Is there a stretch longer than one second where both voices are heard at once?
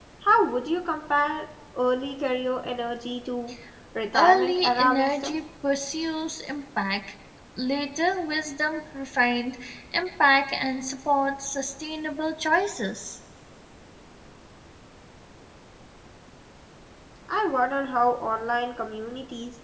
Yes, from 4.1 s

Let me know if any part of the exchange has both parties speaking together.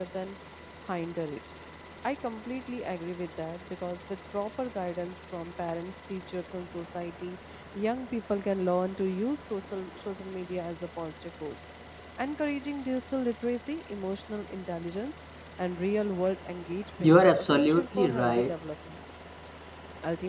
Yes, from 17.0 s

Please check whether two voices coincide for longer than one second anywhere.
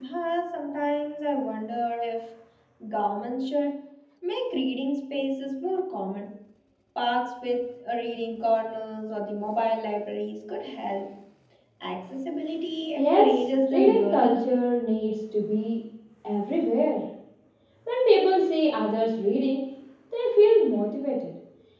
Yes, from 13.0 s

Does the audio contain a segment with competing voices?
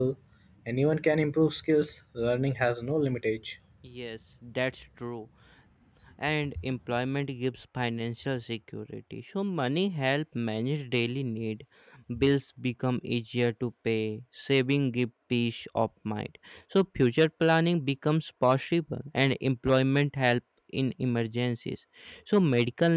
No

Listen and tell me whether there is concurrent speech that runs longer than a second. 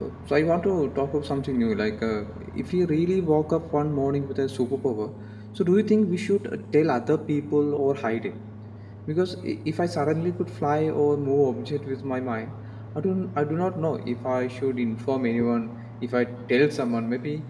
No

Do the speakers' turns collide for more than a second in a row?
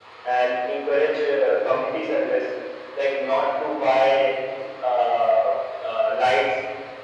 No

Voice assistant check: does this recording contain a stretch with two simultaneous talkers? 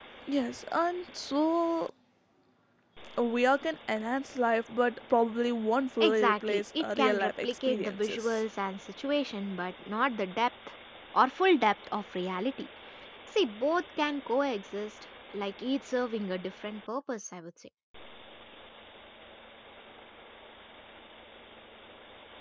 Yes, from 6.0 s

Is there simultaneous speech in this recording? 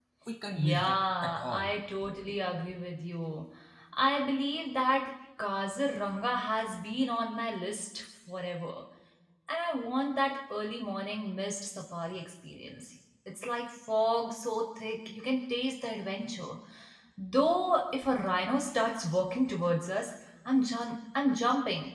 Yes, from 0.5 s

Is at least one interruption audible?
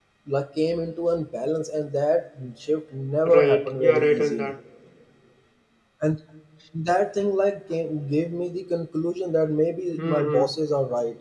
Yes, from 3.2 s

